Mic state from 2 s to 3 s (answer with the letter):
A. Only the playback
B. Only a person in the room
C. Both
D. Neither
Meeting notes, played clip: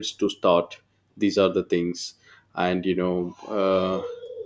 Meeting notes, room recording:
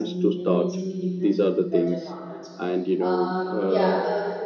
C